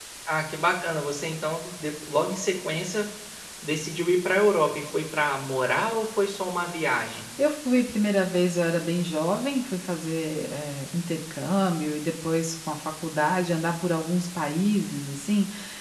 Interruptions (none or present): none